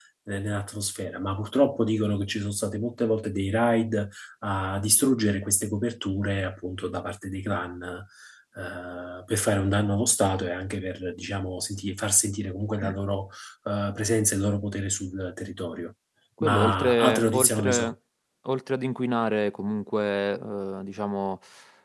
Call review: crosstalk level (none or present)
present